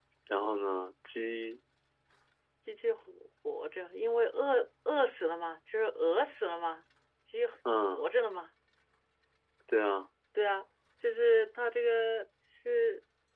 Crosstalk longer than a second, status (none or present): none